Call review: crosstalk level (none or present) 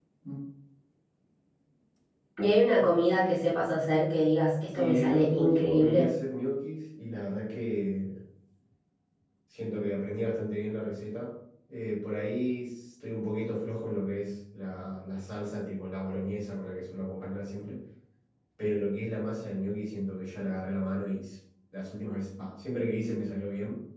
present